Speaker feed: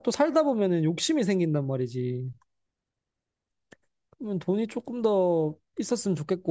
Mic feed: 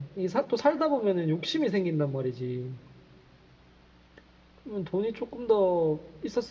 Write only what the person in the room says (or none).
none